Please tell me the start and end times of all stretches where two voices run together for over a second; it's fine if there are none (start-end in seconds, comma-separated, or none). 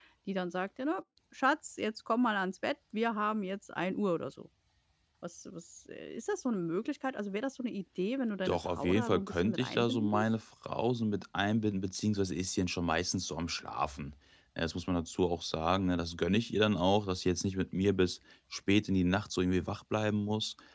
8.4-10.2